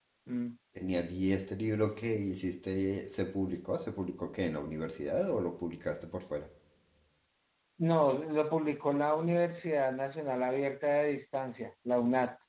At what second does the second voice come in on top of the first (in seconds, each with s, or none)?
none